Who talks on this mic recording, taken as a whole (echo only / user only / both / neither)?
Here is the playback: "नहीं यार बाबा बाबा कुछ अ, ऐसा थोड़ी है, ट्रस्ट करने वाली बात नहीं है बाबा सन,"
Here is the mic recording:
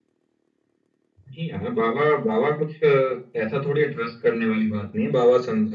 echo only